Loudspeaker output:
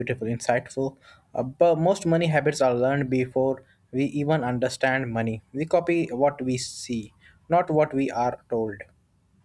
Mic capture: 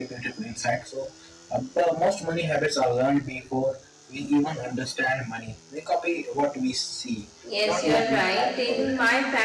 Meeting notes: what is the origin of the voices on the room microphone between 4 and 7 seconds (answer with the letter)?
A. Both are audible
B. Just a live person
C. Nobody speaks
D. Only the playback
D